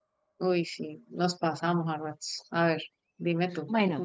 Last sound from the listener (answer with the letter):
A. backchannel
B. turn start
B